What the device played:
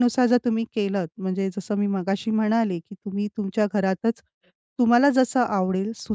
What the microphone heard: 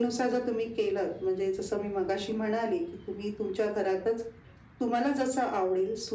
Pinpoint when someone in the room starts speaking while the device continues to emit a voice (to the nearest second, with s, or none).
none